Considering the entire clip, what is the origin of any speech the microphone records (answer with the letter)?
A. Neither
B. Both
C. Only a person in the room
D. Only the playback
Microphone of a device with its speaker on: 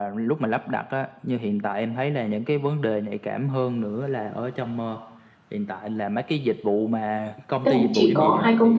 B